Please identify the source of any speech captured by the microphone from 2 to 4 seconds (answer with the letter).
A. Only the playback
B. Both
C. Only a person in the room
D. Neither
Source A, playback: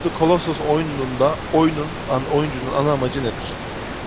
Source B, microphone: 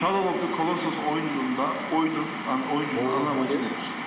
B